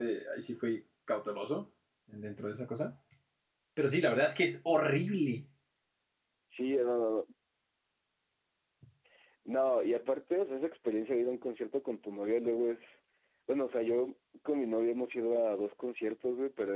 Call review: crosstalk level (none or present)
none